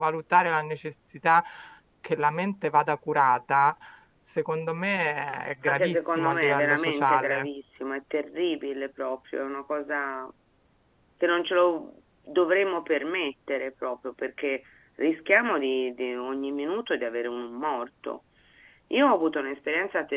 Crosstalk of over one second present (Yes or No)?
Yes